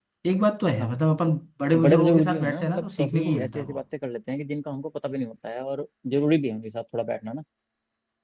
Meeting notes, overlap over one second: present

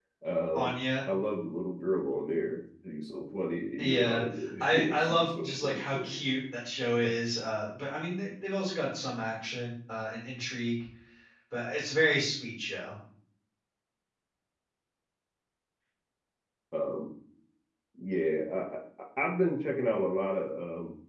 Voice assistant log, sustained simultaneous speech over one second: present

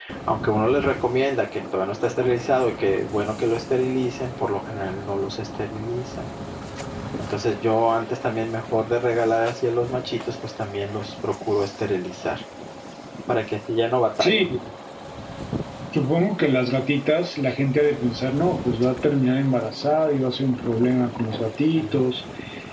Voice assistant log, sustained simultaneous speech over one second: none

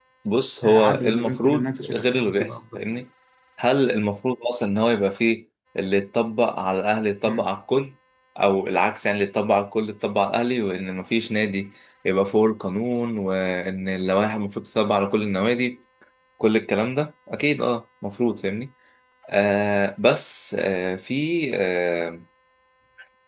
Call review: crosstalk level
present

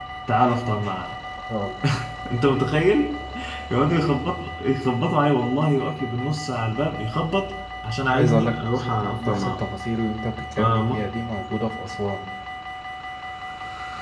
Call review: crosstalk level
present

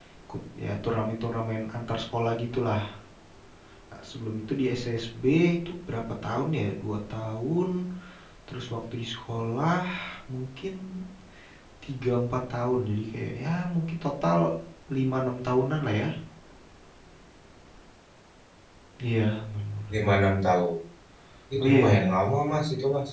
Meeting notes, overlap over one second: none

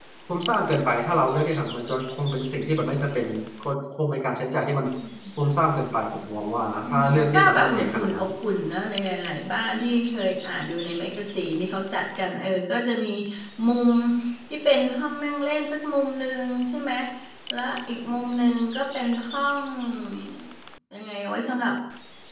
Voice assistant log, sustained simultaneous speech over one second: present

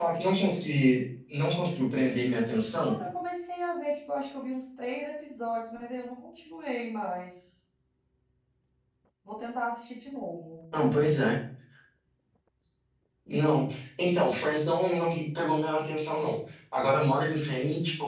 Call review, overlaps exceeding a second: none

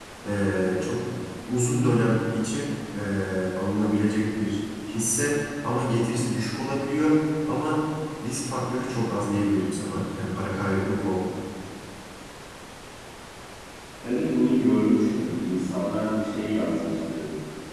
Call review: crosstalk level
none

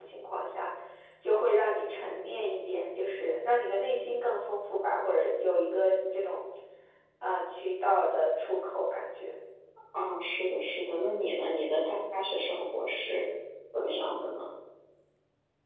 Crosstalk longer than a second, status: none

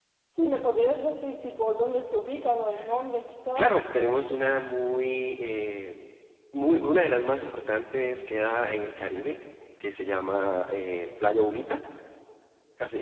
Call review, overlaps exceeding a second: none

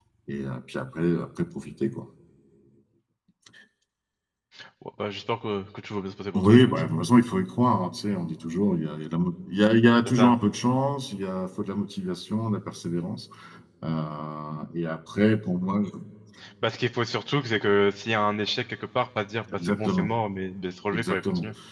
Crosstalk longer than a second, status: none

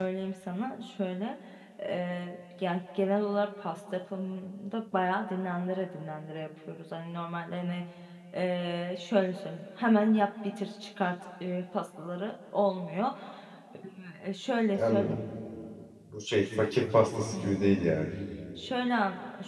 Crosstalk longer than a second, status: none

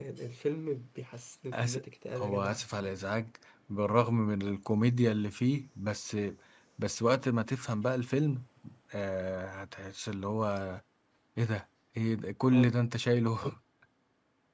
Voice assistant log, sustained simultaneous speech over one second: none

